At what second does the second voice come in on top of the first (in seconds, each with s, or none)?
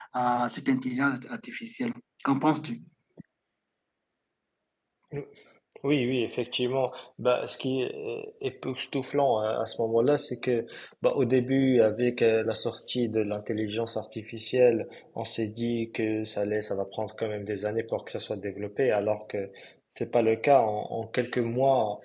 none